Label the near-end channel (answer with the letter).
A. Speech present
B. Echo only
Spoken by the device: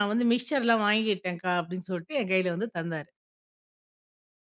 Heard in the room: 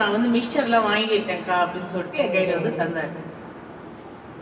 A